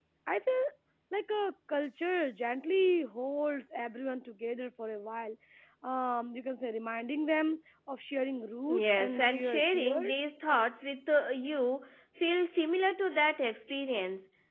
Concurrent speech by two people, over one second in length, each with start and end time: 8.8-10.1

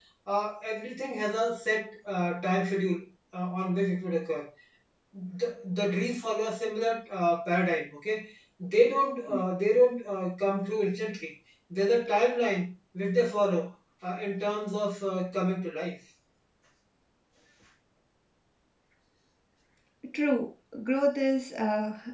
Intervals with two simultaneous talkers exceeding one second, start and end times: none

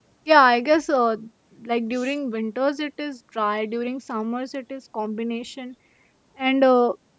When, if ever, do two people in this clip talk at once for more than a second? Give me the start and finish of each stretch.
none

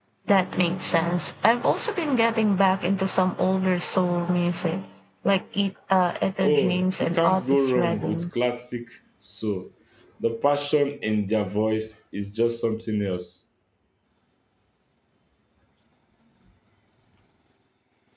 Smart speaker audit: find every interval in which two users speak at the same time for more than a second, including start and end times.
6.4-8.2

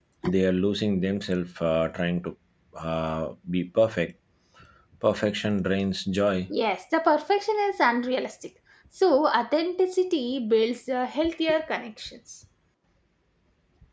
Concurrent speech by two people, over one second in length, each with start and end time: none

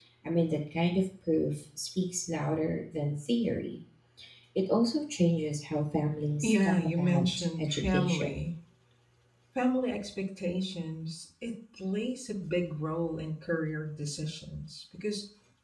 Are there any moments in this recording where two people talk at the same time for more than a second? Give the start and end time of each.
6.4-8.5

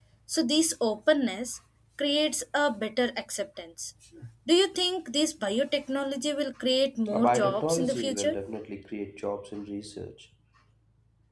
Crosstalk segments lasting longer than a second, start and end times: 7.1-8.4

